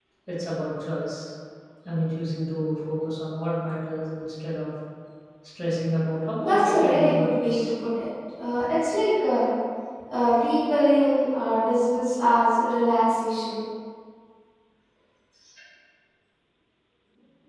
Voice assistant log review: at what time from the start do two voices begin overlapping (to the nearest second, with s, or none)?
6 s